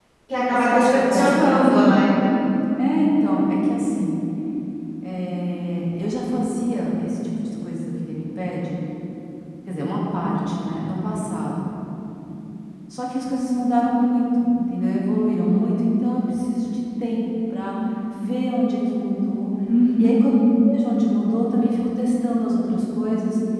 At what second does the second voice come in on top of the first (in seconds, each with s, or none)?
0.6 s